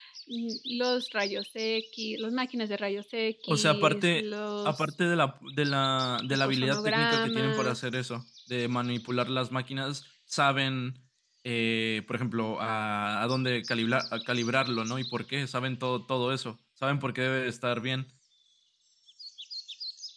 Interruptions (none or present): present